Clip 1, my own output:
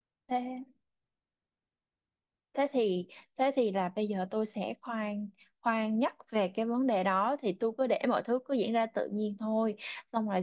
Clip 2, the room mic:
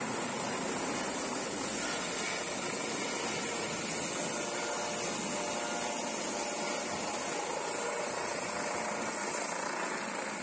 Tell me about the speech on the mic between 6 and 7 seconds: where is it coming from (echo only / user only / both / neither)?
neither